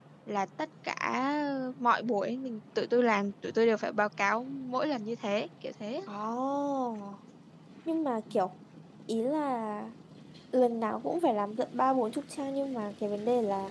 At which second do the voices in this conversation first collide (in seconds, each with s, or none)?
none